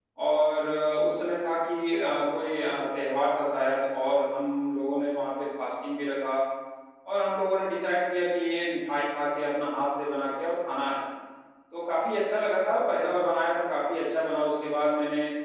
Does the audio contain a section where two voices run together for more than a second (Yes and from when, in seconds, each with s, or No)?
No